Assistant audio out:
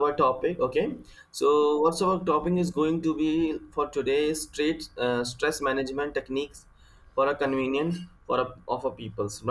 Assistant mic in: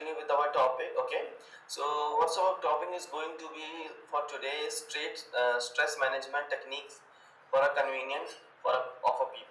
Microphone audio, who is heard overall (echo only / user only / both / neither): echo only